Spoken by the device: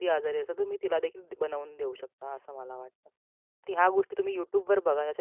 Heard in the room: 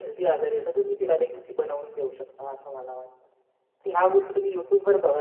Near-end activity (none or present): none